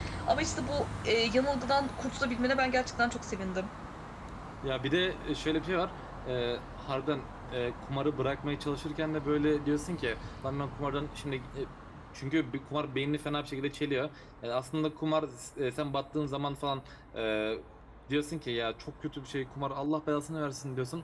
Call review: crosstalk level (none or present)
none